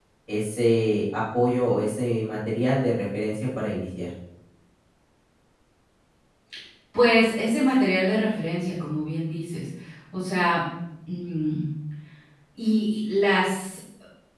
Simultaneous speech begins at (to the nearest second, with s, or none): none